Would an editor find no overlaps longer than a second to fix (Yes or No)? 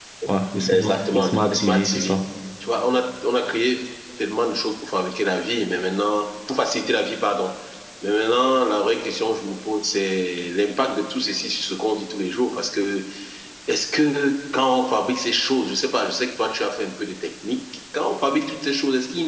No